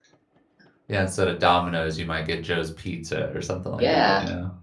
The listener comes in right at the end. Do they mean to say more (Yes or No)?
Yes